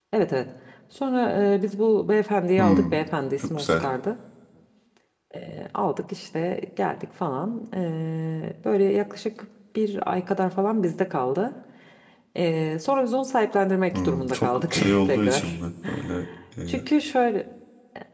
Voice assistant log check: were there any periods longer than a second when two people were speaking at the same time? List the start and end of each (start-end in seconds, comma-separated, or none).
13.9-15.5